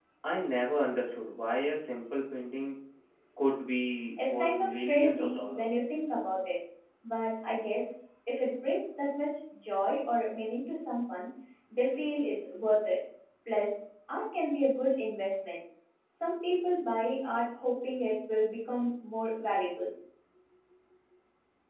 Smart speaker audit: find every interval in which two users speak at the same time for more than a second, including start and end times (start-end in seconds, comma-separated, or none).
4.2-5.7